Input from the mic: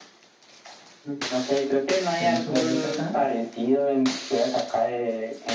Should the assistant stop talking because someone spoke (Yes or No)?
Yes